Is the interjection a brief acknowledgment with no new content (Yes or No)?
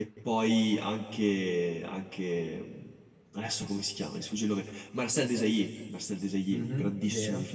No